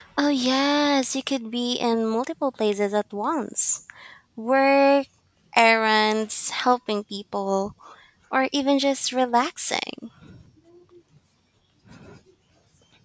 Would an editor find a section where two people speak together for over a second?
No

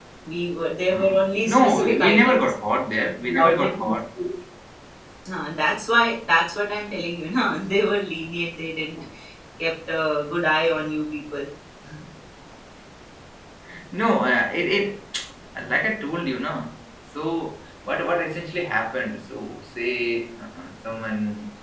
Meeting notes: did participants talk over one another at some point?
Yes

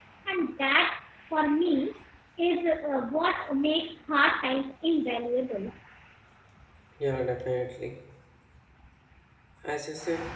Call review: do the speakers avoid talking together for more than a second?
Yes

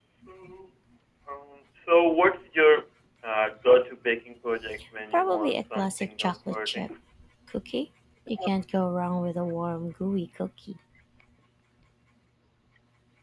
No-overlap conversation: No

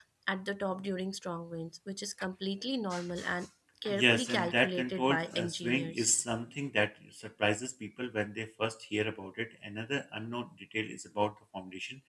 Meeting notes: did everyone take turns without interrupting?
No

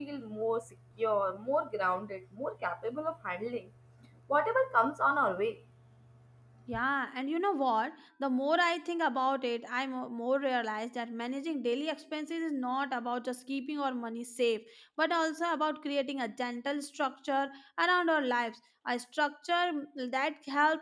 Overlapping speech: No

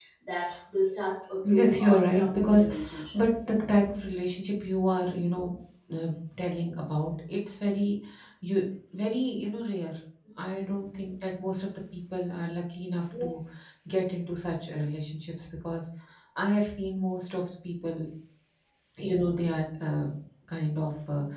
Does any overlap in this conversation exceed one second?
Yes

